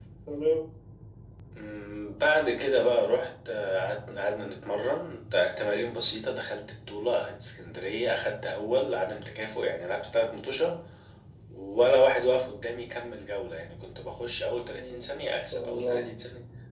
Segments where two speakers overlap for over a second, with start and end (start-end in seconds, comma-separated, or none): 14.5-16.1